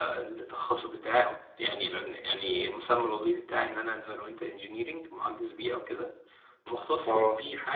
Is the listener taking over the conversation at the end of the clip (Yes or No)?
No